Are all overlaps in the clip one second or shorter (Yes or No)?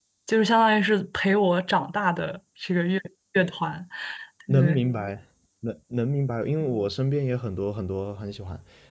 Yes